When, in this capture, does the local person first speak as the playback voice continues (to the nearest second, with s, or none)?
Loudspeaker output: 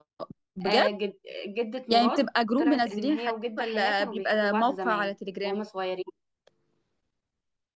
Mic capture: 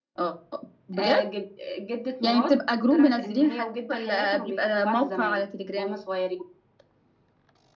none